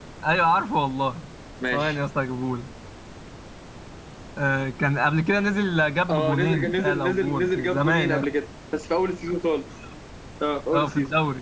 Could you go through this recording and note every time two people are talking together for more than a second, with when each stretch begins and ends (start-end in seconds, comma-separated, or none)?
6.1-8.2